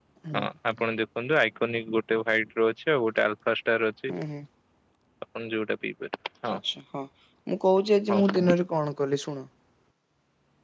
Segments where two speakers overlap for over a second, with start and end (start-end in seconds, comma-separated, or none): none